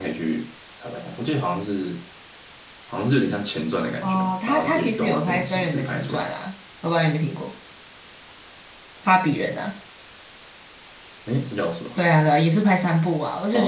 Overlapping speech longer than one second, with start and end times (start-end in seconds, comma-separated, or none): 4.0-6.3